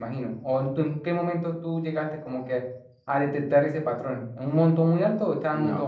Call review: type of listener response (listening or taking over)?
taking over